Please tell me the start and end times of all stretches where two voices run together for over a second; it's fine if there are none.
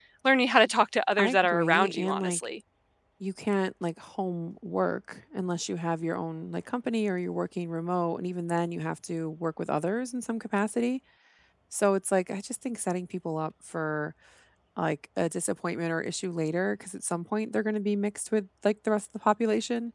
1.2-2.5

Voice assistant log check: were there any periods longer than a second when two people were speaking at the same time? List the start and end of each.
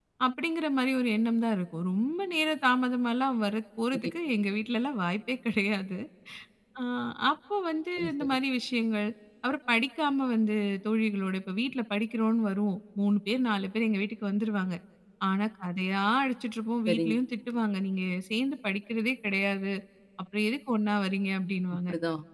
none

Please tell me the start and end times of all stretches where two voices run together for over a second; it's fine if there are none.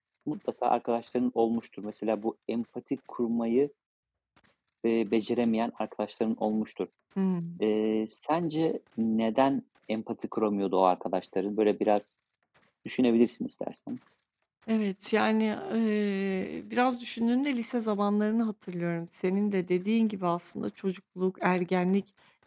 none

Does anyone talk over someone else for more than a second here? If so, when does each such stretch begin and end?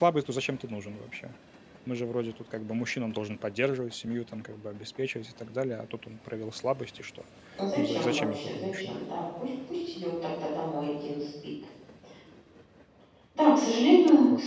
7.8-9.0

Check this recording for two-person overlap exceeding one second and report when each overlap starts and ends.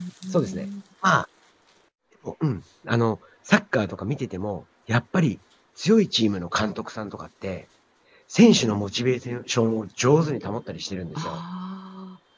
none

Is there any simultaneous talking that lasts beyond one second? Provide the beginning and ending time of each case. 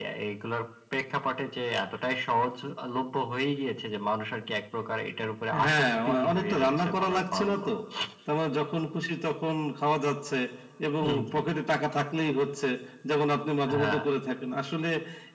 5.6-7.6

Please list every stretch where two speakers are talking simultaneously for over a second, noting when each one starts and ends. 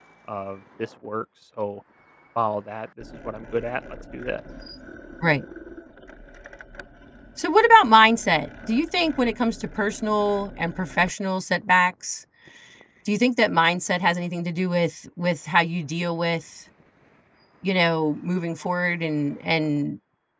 none

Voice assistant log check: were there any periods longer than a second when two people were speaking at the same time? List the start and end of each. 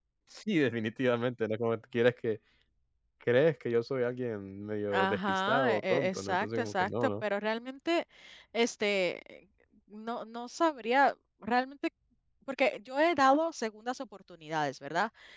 4.9-7.2

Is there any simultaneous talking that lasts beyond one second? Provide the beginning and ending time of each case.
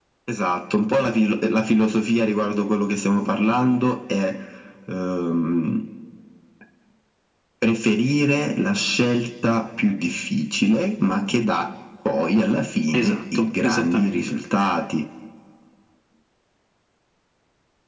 12.9-14.4

